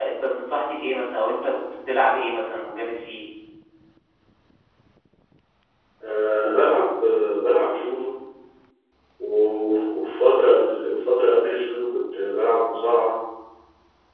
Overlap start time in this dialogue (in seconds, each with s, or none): none